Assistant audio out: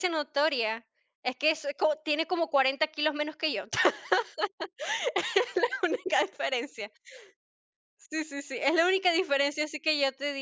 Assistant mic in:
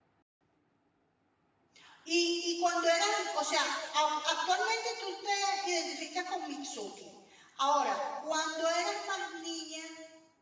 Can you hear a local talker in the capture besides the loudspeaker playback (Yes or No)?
Yes